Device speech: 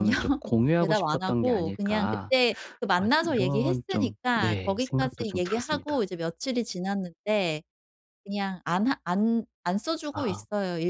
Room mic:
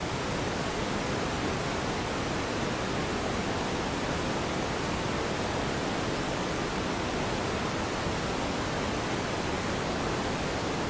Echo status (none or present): none